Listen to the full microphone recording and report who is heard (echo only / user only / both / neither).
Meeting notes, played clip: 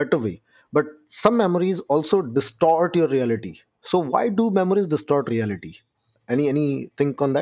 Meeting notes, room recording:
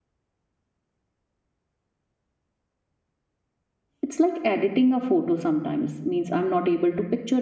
user only